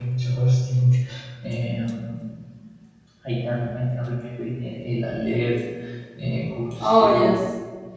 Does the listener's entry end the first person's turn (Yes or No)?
No